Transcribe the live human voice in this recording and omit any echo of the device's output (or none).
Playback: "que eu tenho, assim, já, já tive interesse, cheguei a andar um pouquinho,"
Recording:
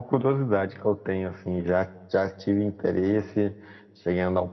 none